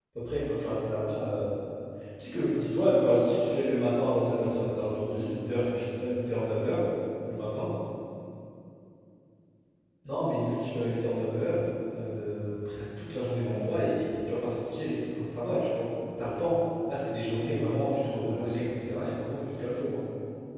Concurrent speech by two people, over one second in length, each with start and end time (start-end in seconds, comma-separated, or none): 4.3-5.5